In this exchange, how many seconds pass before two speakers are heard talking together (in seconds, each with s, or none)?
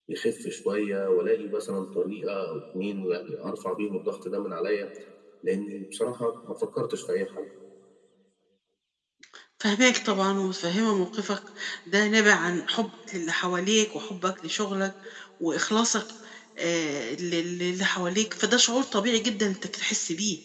none